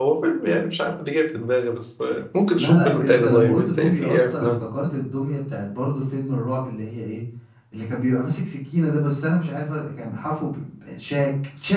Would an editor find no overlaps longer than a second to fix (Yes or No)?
No